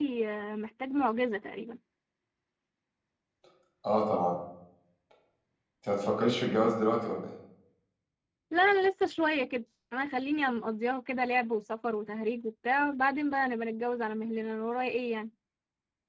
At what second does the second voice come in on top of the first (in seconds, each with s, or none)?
none